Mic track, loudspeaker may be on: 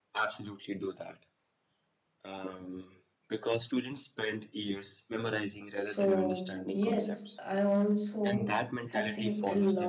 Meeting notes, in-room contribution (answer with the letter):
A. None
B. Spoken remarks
B